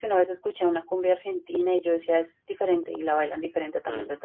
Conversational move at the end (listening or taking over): taking over